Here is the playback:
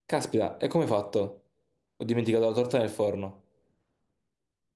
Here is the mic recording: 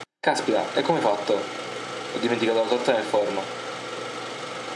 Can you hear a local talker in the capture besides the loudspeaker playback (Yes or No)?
No